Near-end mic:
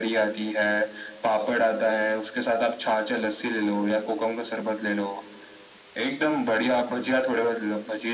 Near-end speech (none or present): none